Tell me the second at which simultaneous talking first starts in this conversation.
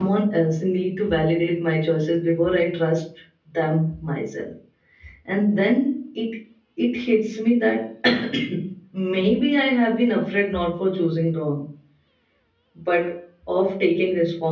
none

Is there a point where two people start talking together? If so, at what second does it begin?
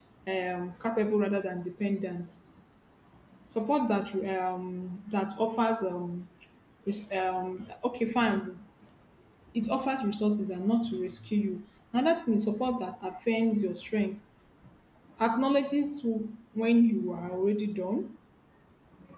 none

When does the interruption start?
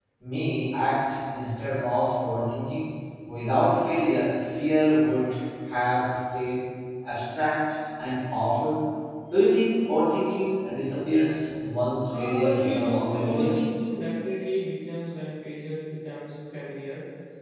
12.1 s

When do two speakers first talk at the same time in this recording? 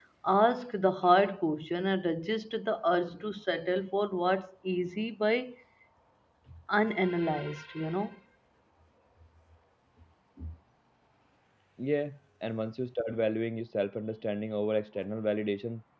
none

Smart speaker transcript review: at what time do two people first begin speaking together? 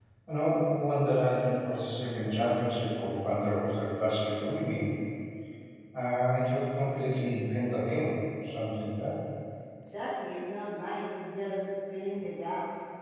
none

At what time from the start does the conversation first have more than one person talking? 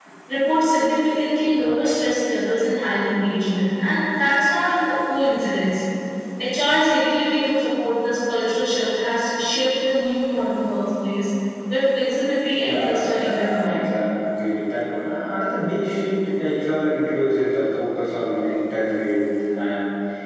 12.6 s

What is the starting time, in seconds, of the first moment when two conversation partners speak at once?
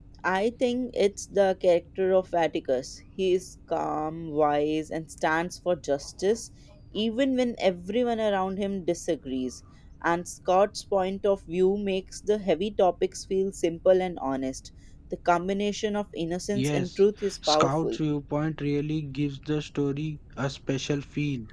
16.5 s

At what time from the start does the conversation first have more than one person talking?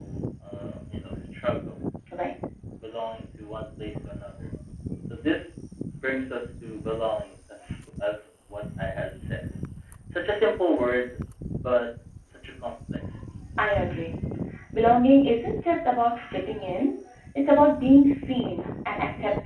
none

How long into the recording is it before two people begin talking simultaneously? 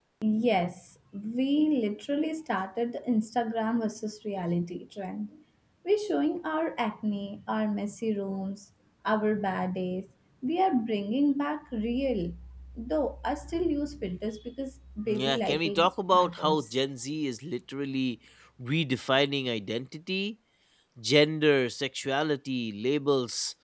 15.1 s

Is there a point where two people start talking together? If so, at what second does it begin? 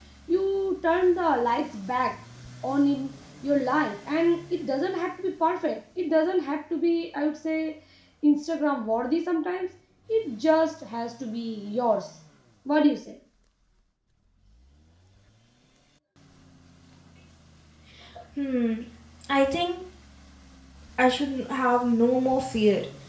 none

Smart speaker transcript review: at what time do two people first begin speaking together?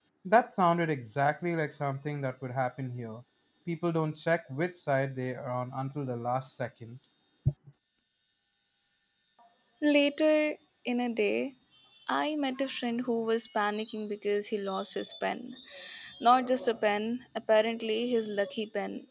none

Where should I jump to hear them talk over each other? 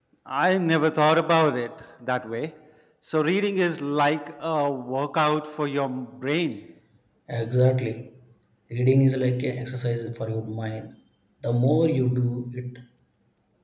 none

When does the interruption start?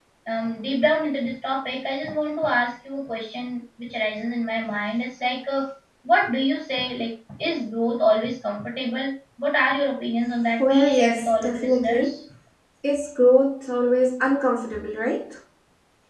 10.6 s

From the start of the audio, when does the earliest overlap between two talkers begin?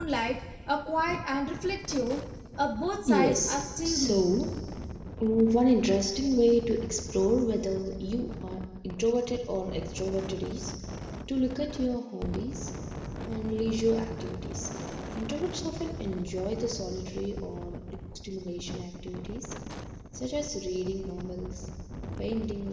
3.0 s

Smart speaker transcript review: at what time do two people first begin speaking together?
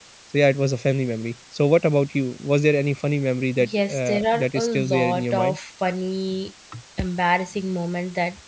3.6 s

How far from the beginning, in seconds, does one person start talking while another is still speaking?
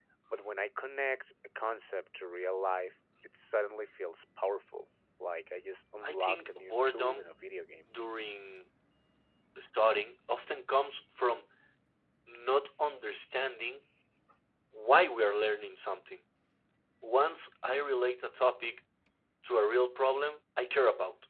6.0 s

